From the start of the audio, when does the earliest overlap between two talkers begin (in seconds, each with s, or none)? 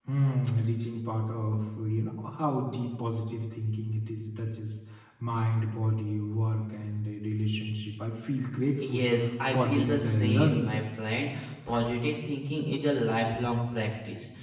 8.8 s